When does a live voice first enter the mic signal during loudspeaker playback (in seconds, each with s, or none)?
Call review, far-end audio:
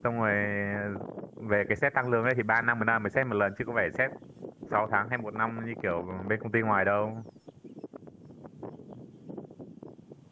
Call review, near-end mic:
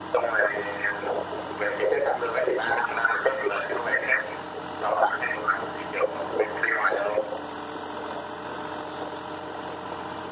none